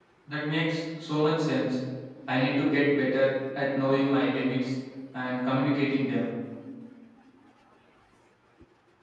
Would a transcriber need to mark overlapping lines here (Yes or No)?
No